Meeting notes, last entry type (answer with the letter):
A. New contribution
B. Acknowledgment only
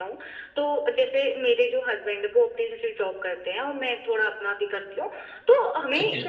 B